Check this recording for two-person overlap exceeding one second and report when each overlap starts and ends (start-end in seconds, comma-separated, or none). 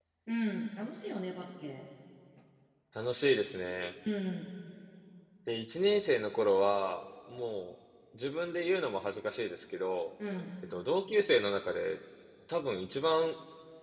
none